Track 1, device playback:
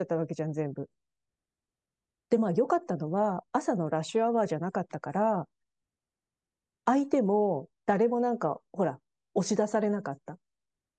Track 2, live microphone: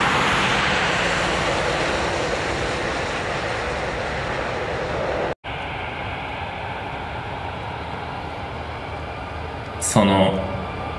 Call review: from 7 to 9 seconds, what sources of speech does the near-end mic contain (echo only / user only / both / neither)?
neither